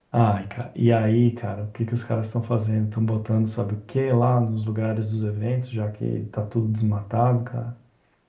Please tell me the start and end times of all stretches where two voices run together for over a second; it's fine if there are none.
none

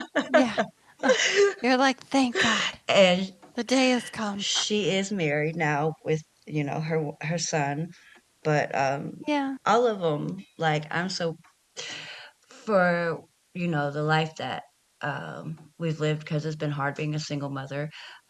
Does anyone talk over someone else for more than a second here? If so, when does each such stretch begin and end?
none

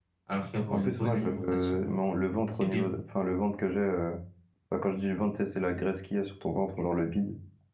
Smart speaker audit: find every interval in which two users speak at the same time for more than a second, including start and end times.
0.7-1.9

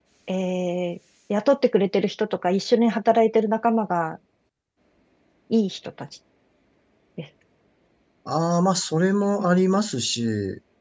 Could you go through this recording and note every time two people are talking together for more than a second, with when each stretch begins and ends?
none

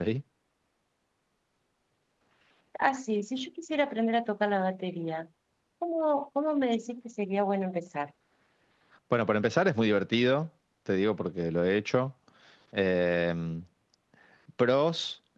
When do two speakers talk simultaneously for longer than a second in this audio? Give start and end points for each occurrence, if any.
none

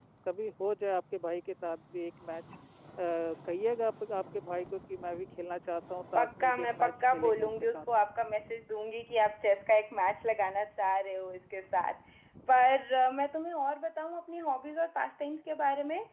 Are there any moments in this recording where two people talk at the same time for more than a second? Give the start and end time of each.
6.2-7.8

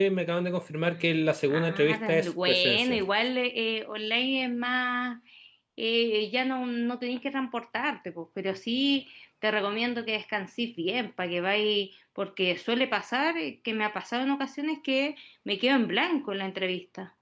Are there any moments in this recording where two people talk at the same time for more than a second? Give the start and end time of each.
1.5-3.0

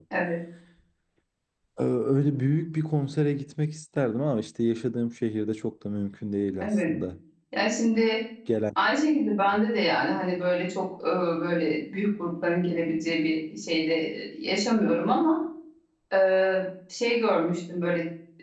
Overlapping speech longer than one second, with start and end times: none

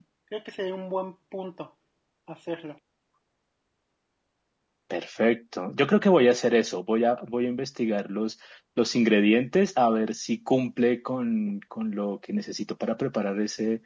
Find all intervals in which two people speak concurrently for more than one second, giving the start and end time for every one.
none

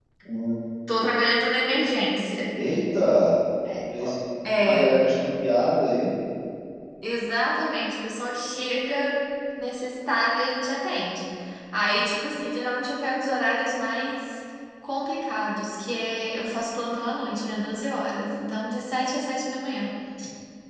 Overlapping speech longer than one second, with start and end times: none

